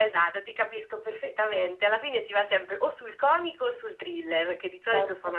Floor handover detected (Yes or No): No